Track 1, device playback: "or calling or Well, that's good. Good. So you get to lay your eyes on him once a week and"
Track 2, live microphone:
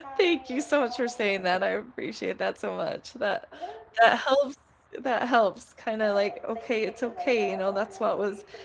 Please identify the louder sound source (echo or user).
user